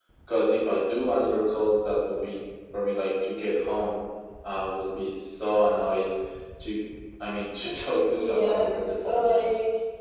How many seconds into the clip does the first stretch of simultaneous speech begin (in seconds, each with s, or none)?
8.0 s